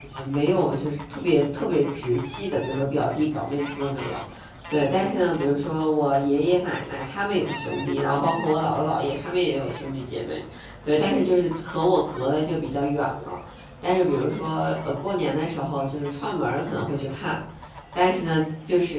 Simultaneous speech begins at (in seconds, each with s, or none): none